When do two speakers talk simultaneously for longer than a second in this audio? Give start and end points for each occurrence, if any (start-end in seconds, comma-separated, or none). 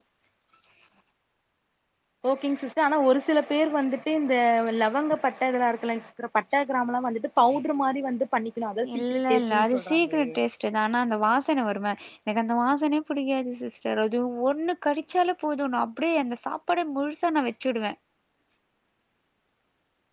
8.9-10.3